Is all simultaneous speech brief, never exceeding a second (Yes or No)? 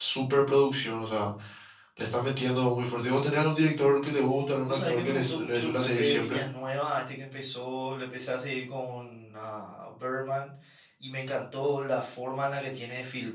No